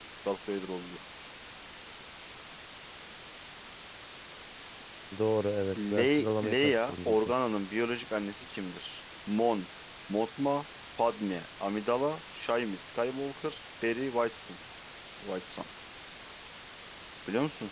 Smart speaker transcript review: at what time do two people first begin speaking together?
5.8 s

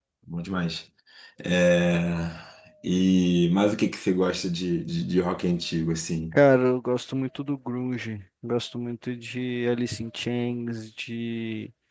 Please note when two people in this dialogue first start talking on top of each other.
none

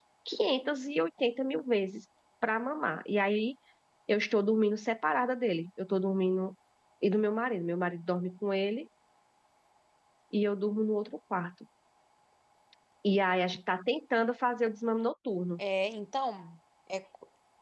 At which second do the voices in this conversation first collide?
none

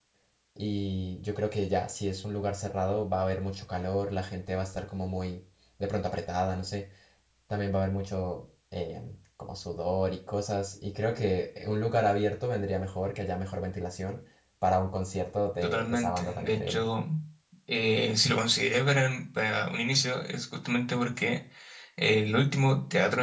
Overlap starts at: 15.6 s

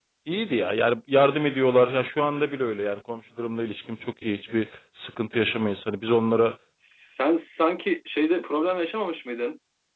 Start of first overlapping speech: none

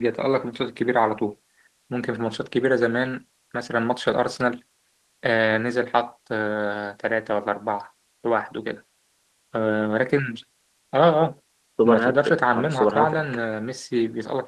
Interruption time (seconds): 11.8 s

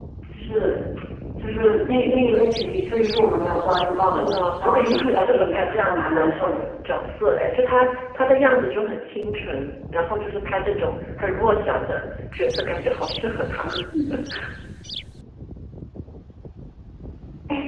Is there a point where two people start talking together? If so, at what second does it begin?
4.1 s

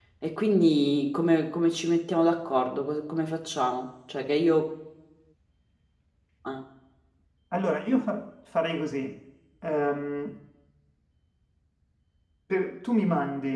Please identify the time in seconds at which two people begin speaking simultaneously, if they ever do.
none

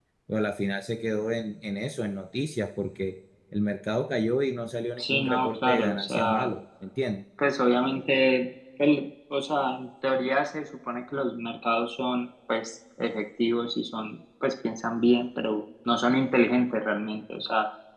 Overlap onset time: 5.0 s

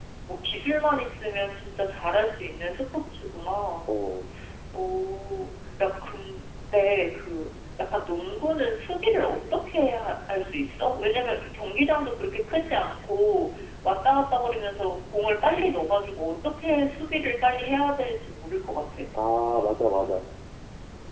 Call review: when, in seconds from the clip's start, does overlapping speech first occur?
none

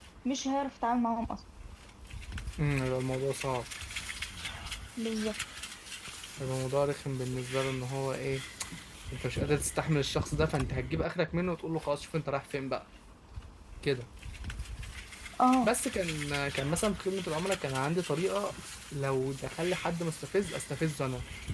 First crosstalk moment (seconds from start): none

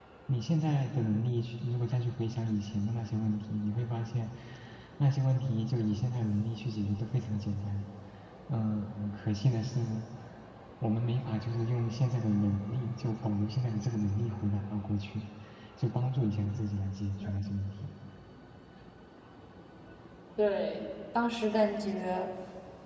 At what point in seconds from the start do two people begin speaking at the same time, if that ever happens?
none

